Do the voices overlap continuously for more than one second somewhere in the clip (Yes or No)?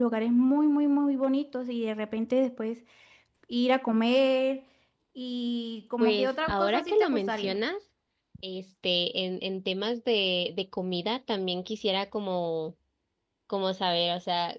Yes